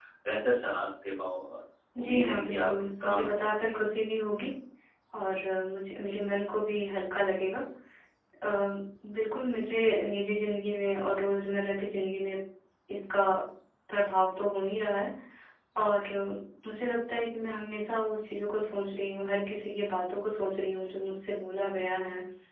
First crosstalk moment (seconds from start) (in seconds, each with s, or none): 2.0 s